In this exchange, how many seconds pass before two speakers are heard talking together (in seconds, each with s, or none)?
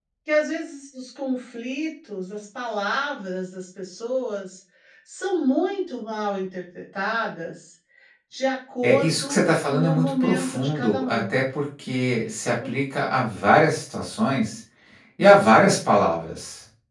8.8 s